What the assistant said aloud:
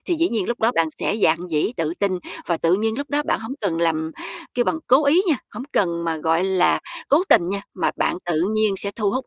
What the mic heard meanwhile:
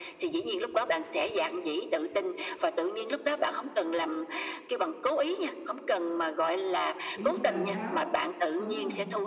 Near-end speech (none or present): present